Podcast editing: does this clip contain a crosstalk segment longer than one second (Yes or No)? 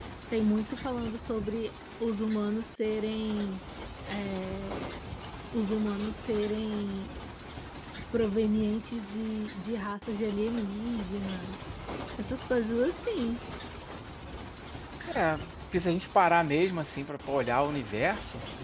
No